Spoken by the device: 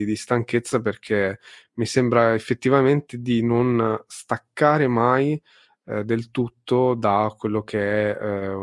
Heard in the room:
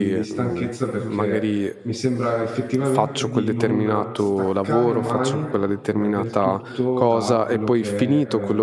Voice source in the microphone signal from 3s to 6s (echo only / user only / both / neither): both